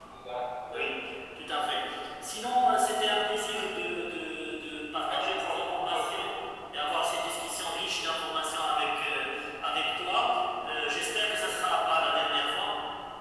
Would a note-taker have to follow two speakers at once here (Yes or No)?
Yes